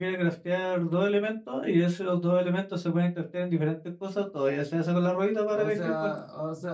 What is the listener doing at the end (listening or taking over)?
taking over